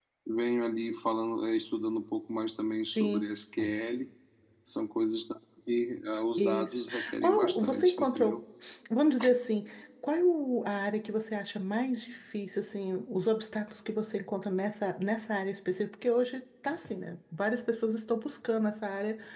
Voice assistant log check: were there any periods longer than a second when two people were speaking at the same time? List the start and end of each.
6.4-8.4

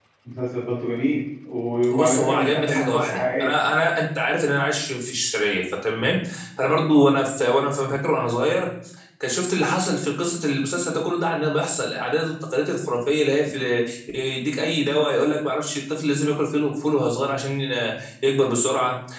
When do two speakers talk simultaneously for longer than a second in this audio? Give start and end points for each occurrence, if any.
1.9-3.5

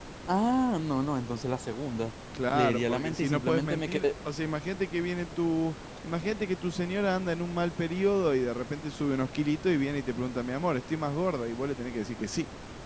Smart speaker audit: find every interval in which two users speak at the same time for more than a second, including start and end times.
2.5-4.0

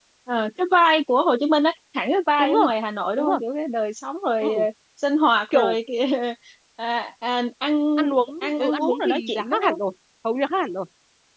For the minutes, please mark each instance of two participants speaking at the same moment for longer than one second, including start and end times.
8.4-9.8

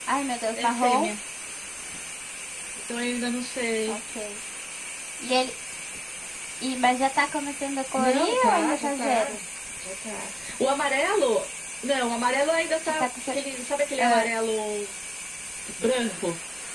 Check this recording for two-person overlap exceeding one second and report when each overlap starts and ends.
8.0-9.4

